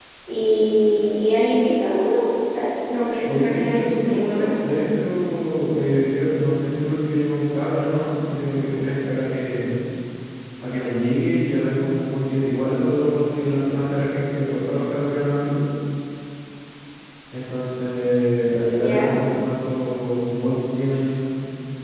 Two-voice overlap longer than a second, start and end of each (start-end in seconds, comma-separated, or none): 3.2-4.8